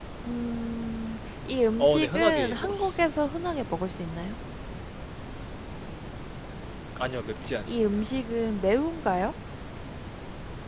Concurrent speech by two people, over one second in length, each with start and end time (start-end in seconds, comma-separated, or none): 1.8-3.2